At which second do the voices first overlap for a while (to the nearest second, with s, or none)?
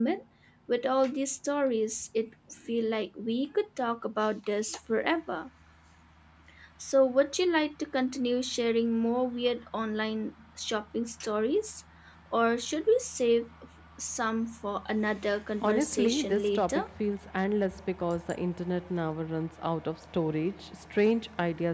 16 s